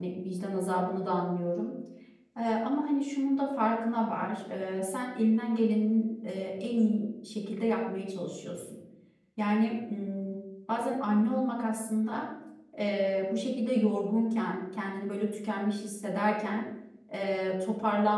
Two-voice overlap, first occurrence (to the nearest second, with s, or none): none